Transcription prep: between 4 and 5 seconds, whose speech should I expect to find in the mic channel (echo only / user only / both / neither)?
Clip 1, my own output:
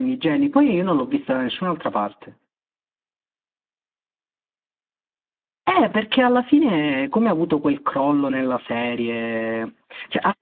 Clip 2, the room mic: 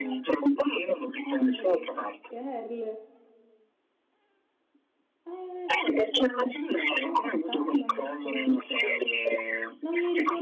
neither